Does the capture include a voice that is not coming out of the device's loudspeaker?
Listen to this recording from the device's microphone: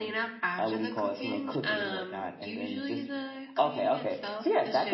No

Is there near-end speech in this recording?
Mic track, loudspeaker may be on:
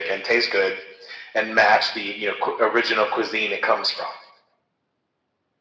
No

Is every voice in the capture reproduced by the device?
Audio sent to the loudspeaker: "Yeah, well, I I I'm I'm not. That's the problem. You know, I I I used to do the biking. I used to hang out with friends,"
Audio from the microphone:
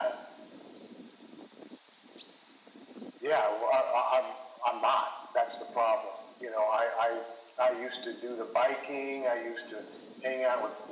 Yes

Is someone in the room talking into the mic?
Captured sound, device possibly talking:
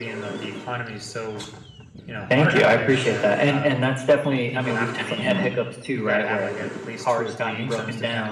No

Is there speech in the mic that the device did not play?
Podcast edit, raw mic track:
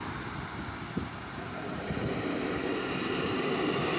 No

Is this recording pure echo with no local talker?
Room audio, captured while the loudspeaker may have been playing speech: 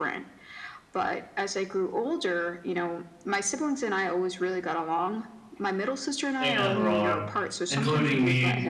No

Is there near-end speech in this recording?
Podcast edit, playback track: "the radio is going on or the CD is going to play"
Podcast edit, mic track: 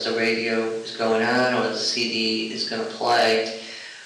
No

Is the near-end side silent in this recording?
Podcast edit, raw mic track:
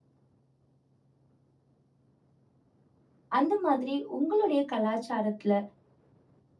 No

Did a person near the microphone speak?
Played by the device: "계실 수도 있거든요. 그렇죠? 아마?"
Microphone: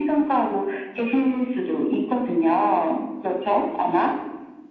No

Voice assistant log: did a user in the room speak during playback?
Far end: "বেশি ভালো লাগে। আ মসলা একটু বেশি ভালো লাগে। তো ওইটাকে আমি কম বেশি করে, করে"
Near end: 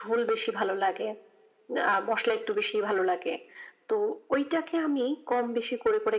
No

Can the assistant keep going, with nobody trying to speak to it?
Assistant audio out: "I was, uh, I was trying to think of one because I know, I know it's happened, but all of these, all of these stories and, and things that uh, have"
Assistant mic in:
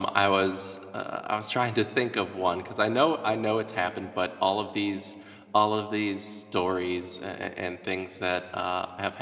Yes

